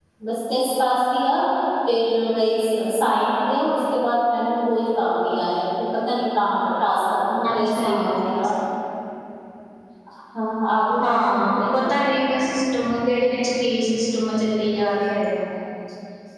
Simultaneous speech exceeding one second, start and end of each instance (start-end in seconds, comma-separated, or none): 11.0-12.2